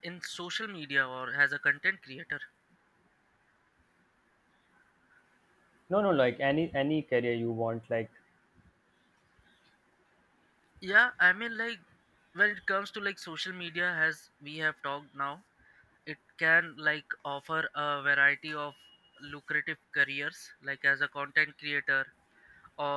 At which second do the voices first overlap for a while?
none

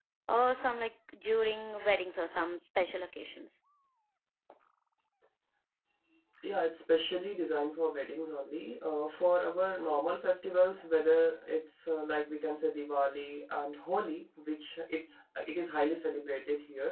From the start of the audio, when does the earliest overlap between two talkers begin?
none

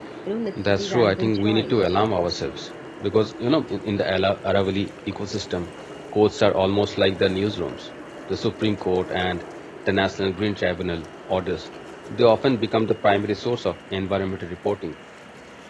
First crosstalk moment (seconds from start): 0.6 s

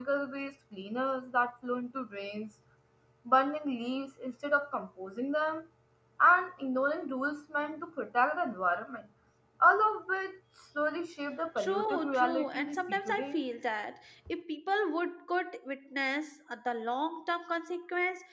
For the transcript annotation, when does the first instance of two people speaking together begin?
11.6 s

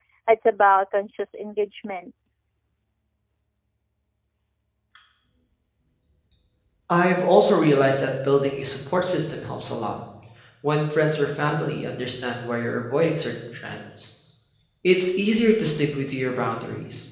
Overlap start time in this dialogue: none

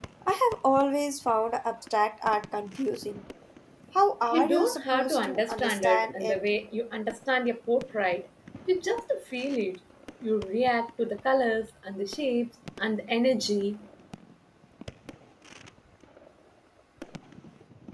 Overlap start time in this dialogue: 4.3 s

